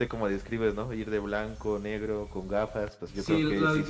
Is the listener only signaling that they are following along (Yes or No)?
No